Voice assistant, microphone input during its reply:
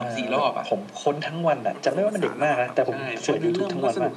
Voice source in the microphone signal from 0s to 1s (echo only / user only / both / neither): echo only